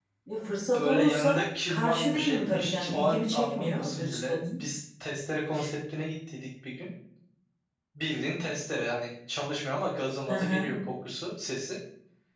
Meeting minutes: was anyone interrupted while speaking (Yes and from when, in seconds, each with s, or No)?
Yes, from 0.8 s